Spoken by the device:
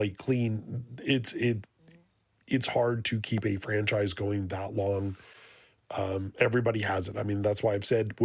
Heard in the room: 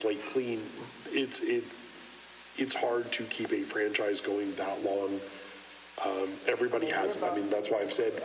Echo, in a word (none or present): present